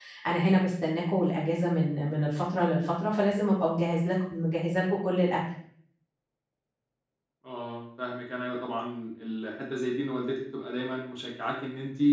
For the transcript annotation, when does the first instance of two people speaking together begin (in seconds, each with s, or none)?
none